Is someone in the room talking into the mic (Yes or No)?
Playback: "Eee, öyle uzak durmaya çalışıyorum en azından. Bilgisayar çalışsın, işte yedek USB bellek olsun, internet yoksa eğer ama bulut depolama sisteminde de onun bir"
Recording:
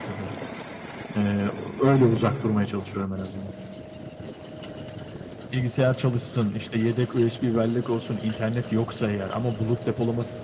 No